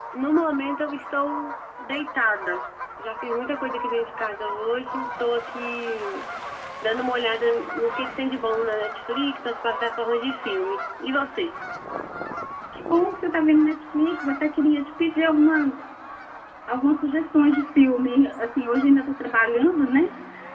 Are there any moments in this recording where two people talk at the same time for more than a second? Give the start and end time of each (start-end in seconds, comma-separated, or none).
none